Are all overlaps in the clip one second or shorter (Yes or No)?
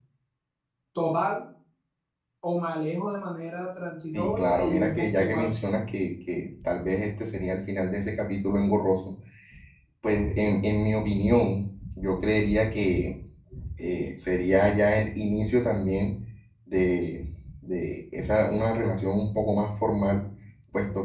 No